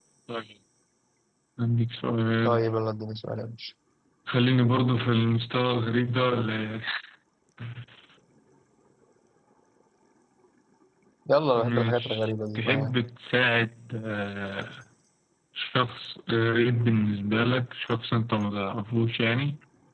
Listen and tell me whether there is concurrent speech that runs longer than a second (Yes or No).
Yes